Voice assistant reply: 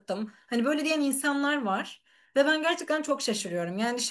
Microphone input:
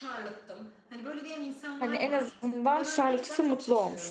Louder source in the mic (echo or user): user